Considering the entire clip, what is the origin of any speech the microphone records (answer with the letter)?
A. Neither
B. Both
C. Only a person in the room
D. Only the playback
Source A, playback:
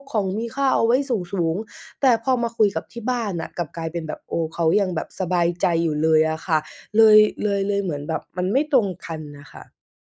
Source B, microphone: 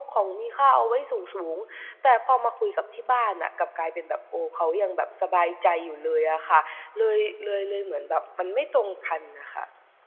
D